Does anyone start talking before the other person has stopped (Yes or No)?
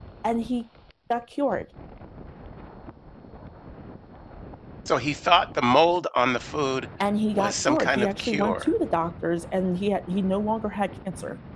Yes